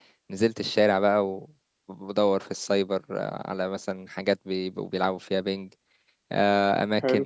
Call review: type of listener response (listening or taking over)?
listening